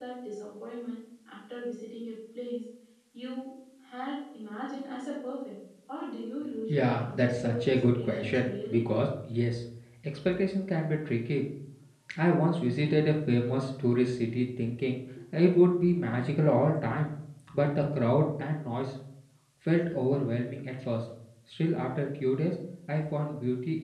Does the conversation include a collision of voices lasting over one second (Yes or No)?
Yes